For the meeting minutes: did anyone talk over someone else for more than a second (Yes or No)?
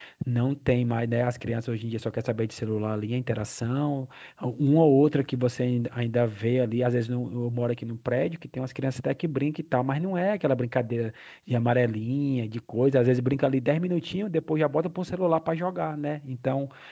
No